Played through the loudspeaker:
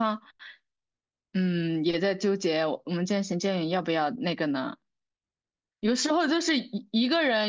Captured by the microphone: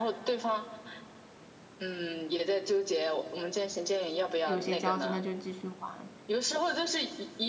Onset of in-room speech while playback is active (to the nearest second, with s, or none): 4 s